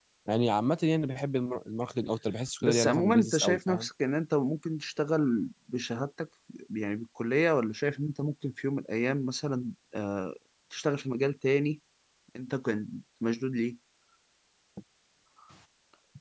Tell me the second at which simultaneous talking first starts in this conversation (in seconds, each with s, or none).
2.6 s